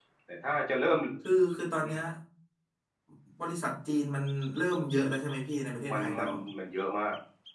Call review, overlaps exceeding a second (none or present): none